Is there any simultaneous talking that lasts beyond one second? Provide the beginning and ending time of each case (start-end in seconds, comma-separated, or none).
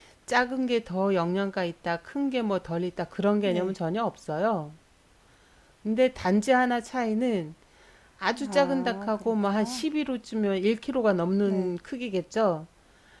8.3-9.8